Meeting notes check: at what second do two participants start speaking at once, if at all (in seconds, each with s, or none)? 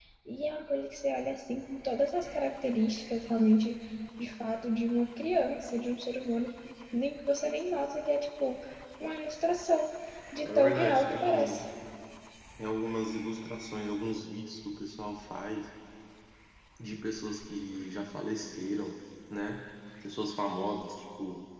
10.4 s